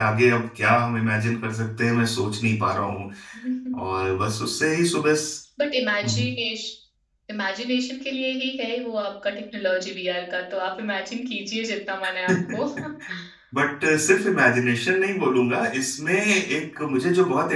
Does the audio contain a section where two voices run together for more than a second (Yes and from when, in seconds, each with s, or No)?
No